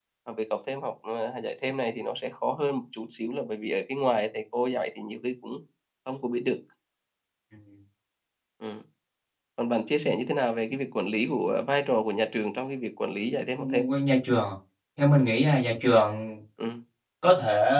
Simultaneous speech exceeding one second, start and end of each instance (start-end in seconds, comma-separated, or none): none